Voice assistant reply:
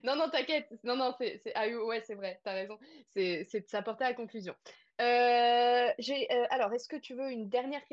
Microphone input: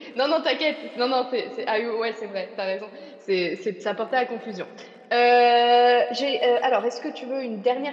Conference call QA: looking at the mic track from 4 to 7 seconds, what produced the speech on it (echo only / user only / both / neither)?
echo only